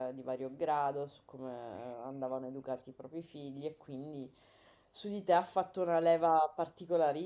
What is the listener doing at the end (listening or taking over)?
listening